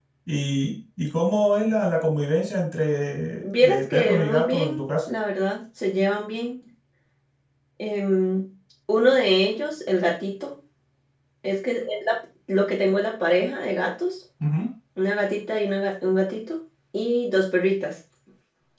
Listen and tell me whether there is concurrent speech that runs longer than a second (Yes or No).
Yes